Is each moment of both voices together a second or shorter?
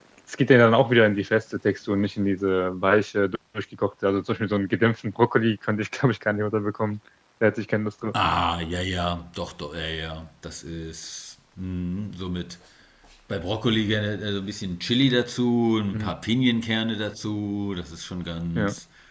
Yes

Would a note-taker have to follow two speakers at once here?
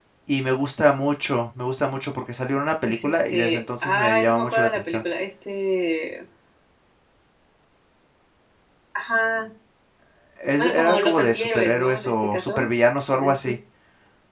Yes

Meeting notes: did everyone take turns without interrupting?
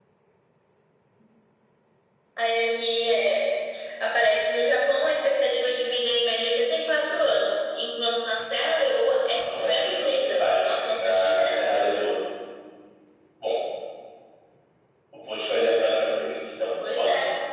No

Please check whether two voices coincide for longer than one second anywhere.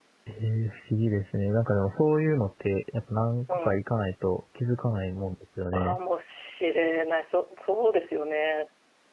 No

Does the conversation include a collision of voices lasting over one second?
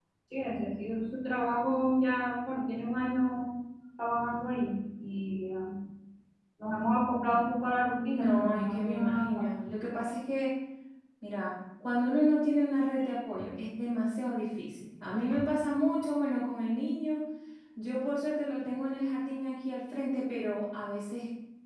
Yes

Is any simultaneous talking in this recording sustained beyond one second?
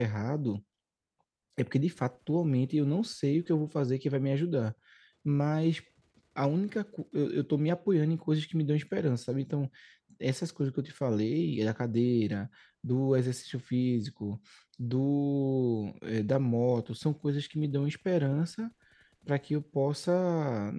No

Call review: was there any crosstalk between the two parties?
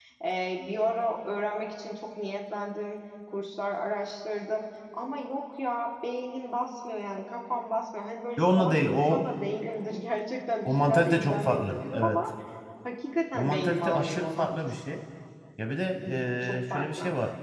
Yes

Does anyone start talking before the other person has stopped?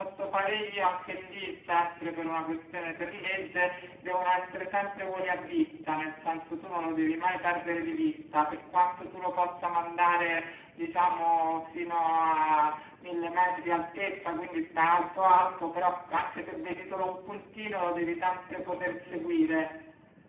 No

